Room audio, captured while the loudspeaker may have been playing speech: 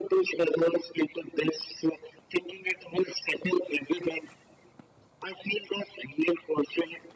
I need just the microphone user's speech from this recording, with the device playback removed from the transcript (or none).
none